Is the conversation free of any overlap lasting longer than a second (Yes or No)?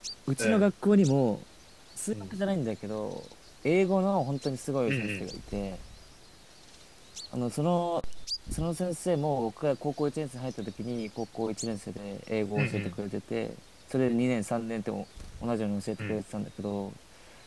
Yes